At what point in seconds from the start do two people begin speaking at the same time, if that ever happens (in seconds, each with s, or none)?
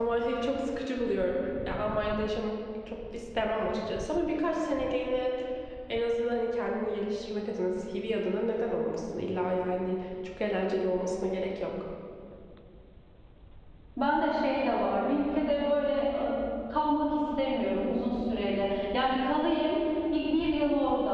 none